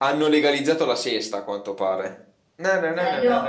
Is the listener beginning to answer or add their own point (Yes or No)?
Yes